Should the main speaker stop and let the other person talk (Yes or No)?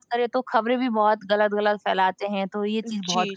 Yes